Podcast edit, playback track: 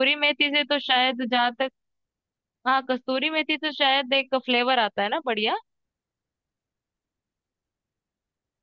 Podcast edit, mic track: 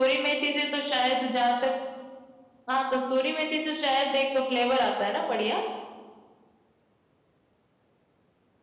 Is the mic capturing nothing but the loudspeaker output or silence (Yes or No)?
Yes